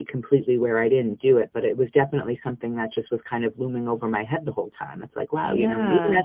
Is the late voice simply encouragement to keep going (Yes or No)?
Yes